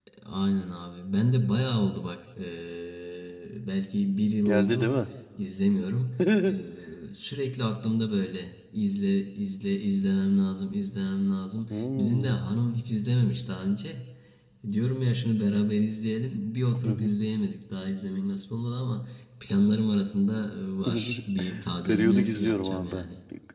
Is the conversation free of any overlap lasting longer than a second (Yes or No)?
No